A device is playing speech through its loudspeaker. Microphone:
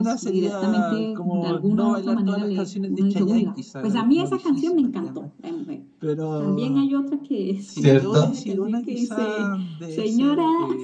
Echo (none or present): present